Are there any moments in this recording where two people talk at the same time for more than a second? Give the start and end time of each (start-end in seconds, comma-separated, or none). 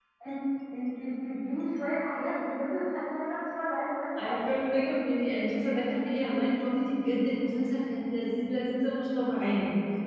none